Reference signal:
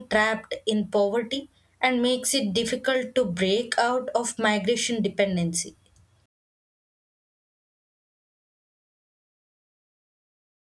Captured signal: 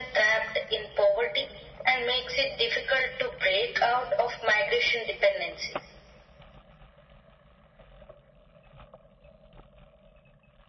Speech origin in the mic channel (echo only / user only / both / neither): echo only